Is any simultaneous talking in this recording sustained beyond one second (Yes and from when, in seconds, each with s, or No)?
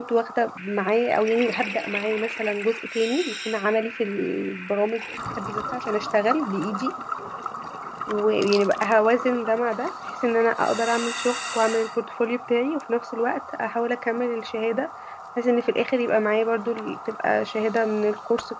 No